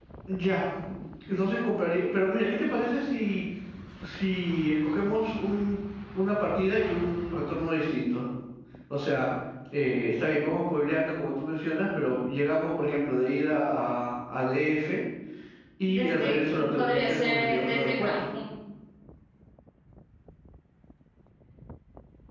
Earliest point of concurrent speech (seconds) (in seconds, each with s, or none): 15.9 s